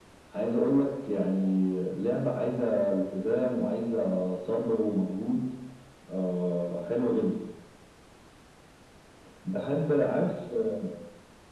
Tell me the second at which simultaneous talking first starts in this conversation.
none

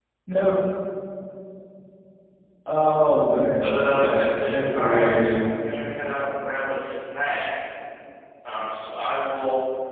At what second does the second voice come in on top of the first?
3.6 s

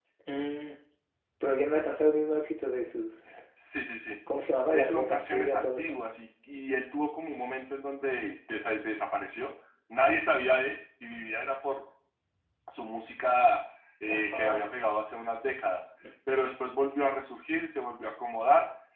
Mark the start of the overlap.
4.7 s

